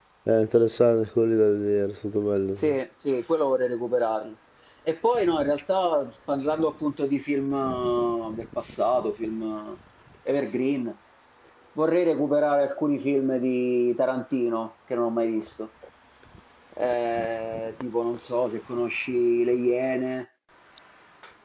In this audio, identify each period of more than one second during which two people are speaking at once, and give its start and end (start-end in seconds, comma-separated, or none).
none